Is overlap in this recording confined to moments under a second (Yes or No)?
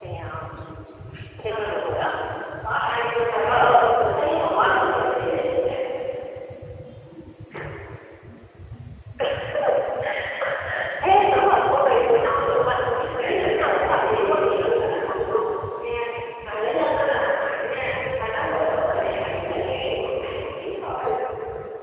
No